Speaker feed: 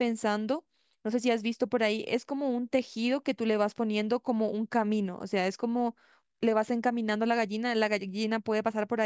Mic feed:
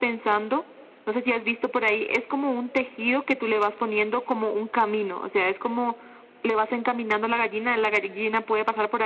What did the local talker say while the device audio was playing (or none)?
none